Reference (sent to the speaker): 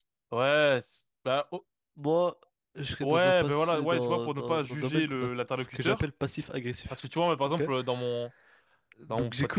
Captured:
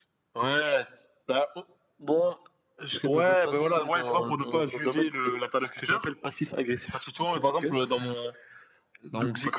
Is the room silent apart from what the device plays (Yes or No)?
Yes